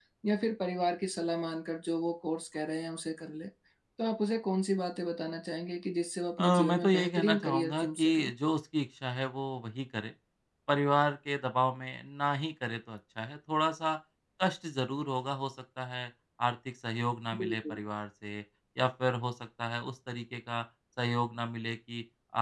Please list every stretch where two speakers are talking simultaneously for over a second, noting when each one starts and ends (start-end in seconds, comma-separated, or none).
6.5-8.2